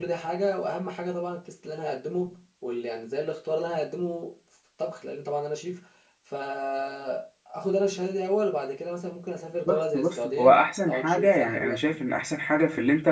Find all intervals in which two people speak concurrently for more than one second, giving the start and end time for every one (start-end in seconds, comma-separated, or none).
9.7-11.8